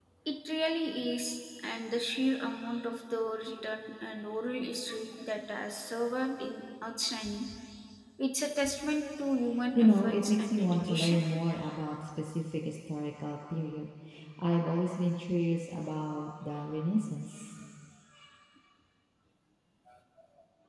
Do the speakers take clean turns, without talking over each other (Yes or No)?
No